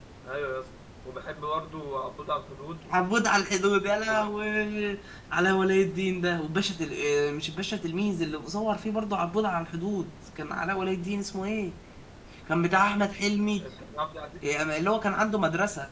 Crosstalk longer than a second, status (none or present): none